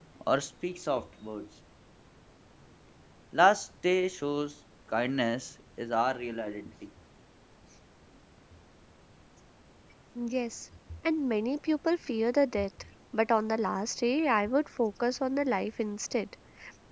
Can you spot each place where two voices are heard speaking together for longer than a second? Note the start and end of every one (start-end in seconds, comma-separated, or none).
none